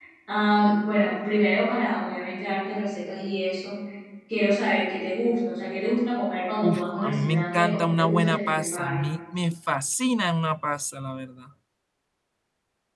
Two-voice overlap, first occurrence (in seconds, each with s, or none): 6.6 s